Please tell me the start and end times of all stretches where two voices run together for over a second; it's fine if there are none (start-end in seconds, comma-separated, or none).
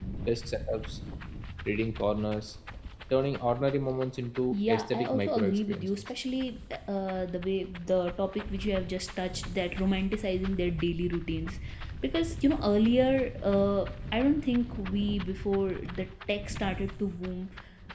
4.5-6.1